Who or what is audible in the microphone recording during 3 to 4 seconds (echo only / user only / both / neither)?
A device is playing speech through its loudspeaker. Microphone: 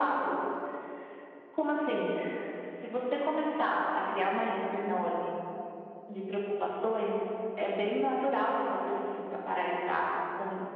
echo only